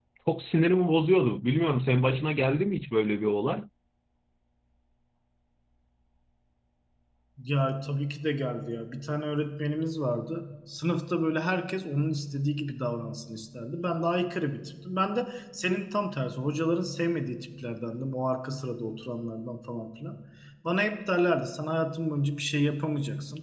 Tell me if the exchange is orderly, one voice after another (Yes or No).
Yes